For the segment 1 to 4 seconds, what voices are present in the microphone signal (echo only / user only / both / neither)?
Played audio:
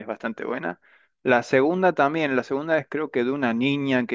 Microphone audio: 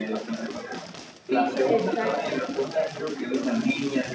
both